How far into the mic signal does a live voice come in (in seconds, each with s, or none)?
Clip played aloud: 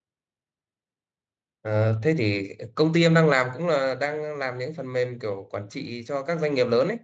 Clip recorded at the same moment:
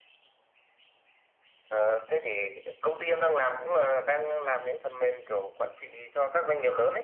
none